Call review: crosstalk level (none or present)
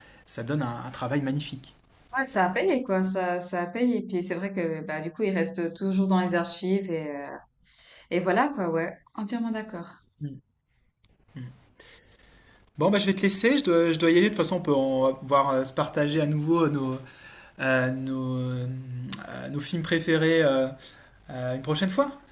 none